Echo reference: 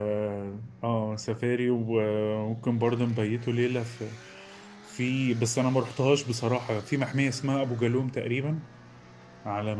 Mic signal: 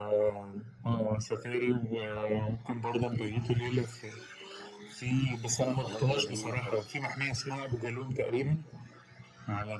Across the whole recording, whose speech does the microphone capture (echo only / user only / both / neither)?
both